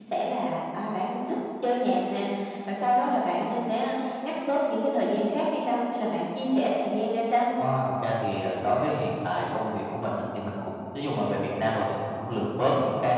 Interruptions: none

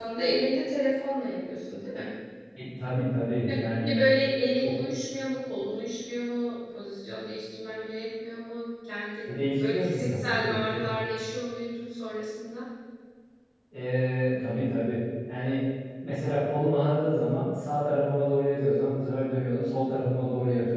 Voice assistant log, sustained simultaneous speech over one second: present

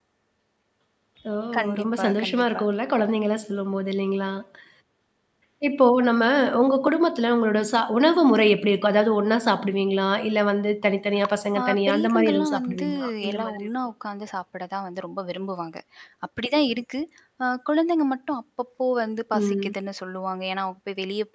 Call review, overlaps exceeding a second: present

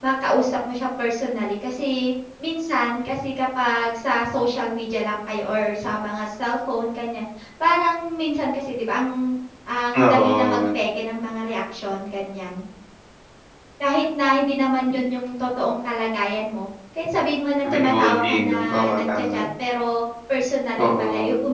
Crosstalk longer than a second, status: present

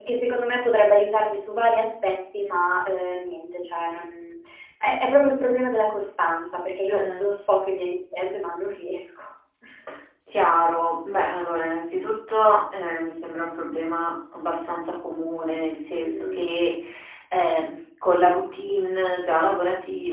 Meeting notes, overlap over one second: none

